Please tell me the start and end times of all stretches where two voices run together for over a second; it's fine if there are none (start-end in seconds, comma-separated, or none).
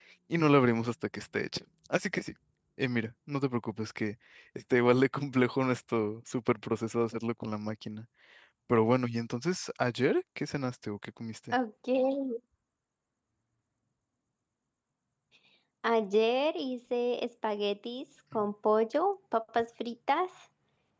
none